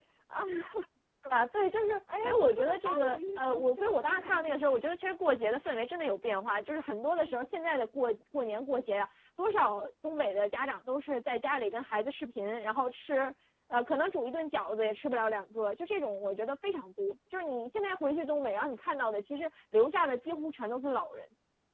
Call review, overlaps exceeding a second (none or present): present